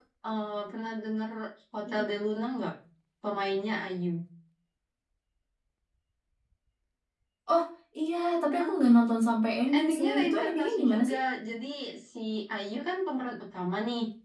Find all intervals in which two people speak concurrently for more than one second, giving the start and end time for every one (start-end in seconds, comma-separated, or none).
9.8-11.2